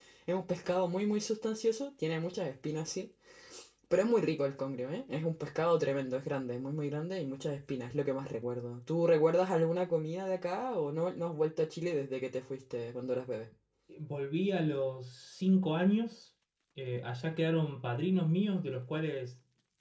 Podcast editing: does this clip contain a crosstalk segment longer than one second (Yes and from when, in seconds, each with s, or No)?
No